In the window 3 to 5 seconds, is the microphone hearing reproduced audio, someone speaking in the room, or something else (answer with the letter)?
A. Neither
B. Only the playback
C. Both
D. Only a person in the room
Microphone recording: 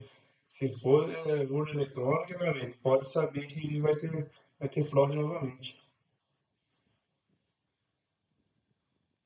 B